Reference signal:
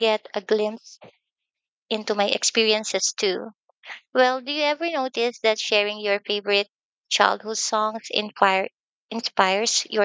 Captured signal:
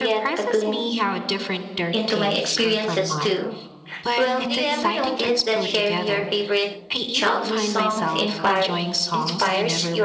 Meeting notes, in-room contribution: present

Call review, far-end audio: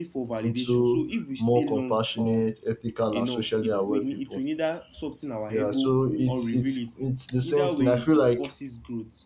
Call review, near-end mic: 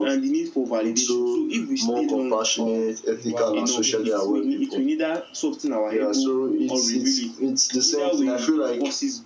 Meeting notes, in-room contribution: present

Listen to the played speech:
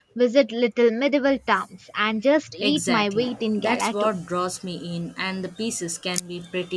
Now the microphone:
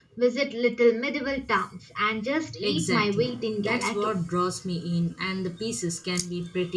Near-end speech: none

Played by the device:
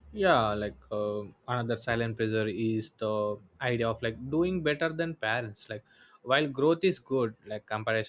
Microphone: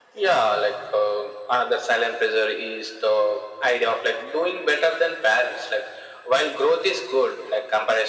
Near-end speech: none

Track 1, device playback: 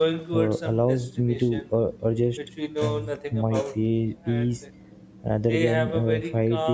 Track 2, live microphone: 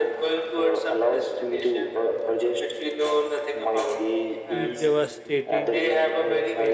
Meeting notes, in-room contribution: present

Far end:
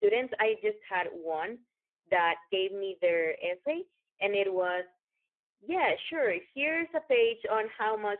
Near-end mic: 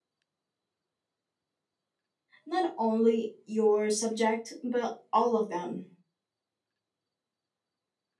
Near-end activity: present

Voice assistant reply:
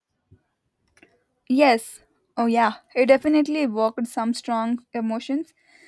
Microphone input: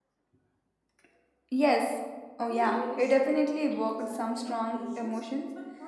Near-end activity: present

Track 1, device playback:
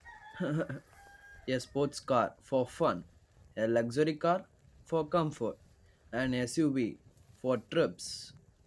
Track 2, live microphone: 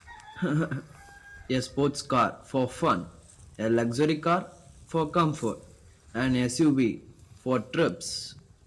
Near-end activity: none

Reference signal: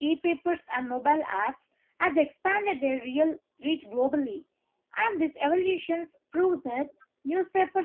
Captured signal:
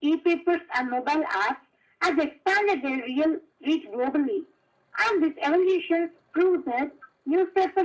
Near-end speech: none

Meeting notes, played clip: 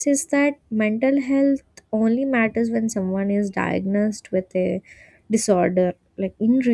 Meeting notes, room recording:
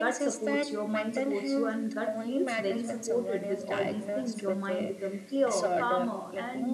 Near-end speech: present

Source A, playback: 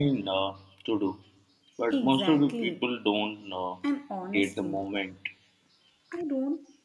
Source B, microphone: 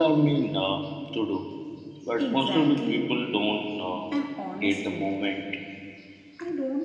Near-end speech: none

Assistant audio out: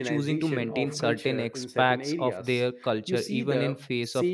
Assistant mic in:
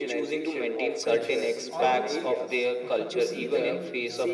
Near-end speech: present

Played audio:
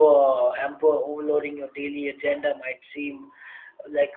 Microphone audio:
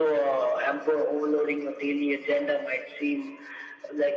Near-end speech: none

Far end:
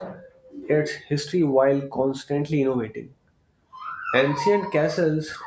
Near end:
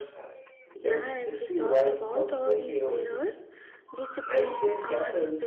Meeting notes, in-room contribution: present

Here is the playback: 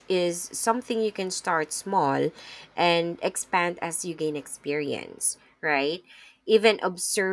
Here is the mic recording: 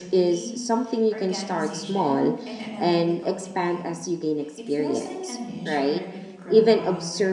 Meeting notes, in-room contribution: present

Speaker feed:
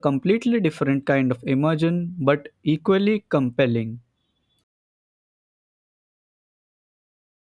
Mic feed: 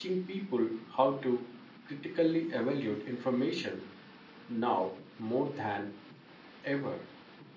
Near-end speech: present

